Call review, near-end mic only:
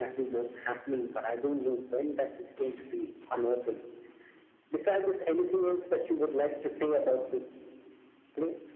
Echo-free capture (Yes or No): No